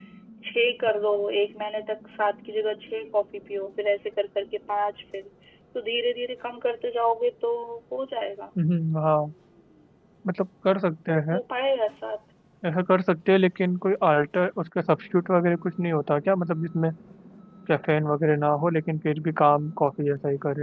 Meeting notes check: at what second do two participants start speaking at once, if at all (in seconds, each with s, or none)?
none